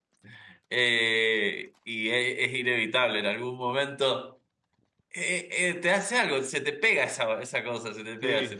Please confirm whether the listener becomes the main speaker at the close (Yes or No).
Yes